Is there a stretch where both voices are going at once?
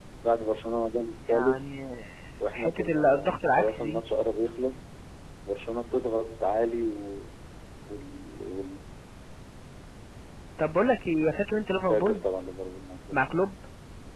Yes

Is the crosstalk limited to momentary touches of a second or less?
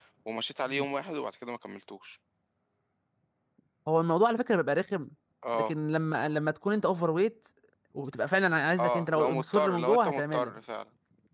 No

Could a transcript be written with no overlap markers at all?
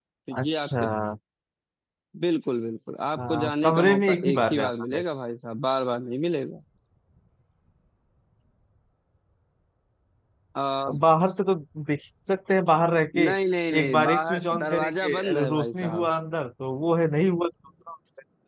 No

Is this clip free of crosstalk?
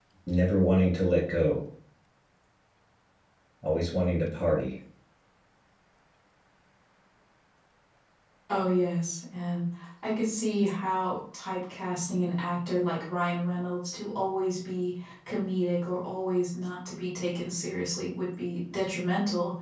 Yes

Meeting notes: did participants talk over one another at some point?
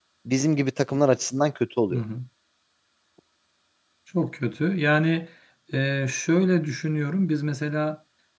No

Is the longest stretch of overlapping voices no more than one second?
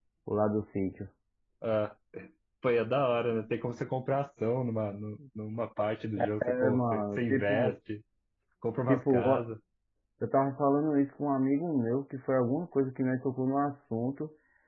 No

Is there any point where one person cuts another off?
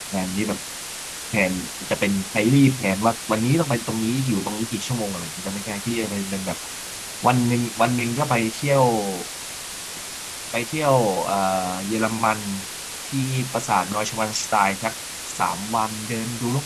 No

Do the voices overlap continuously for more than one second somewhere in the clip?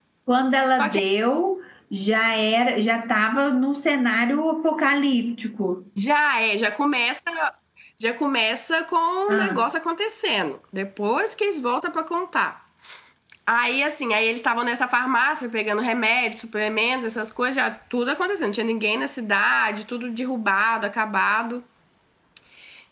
No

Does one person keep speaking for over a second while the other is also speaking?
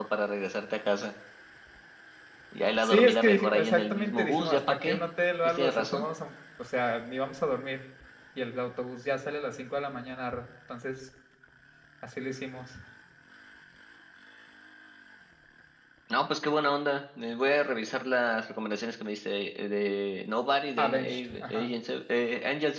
Yes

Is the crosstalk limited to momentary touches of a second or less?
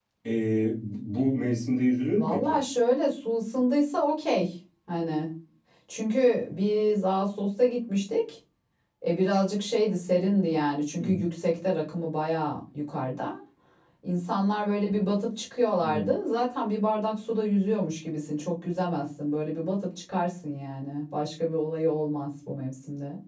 Yes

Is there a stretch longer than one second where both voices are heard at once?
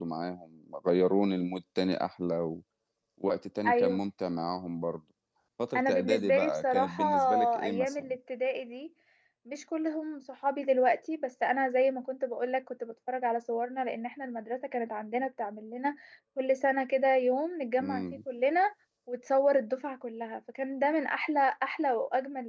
Yes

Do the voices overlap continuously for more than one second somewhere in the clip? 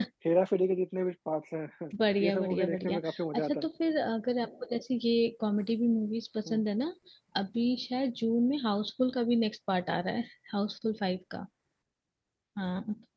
Yes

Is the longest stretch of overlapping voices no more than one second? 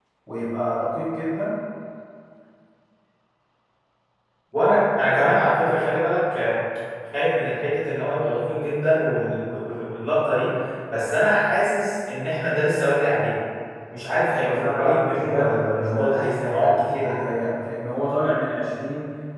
No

